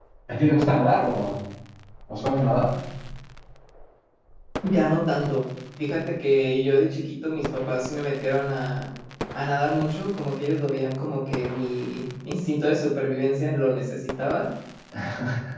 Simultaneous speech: No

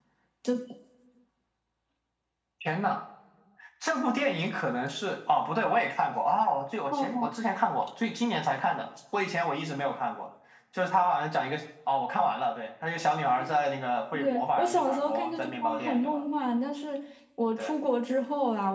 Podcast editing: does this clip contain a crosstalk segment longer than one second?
Yes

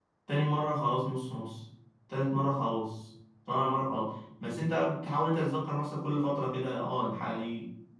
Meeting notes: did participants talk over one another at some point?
No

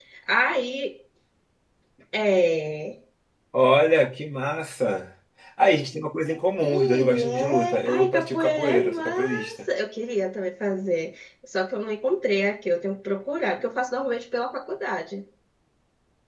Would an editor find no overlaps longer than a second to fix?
No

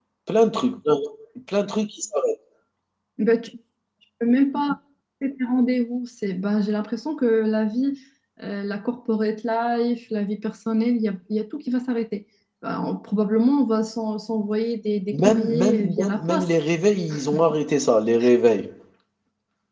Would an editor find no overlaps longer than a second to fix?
No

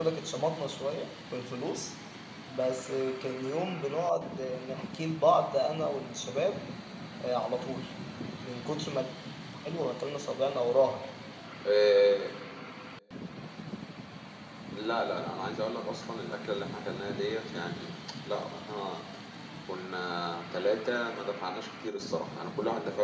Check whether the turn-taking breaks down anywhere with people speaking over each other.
No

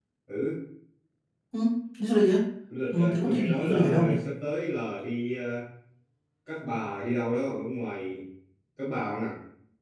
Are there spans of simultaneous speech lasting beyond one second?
Yes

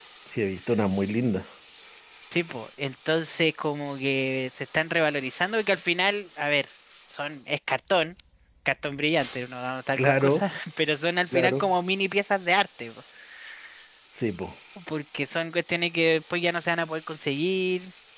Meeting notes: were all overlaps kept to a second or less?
Yes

